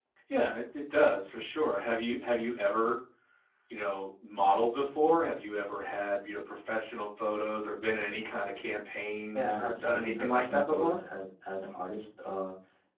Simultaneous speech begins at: 9 s

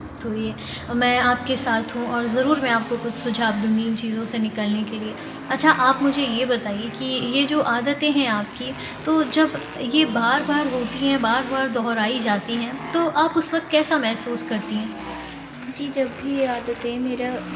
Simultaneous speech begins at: none

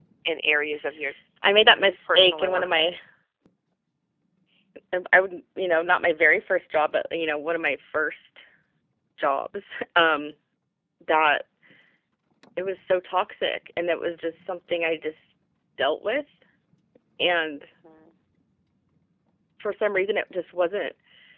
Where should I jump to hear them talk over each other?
2 s

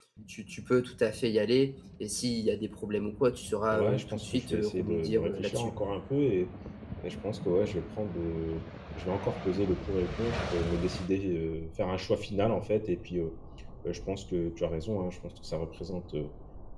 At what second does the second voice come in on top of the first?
4 s

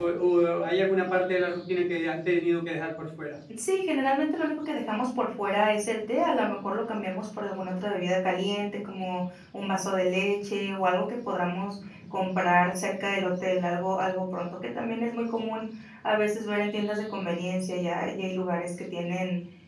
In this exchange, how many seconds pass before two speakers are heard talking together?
none

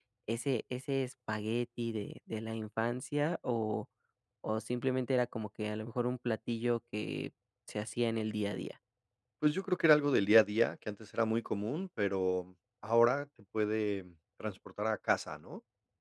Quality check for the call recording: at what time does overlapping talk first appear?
none

